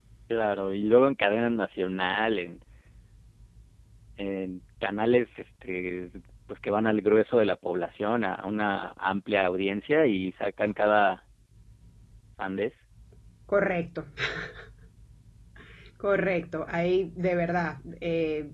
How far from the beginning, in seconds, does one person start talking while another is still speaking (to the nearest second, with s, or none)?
none